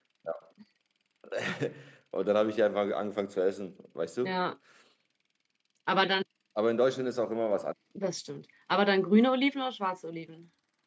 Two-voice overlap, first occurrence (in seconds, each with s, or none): none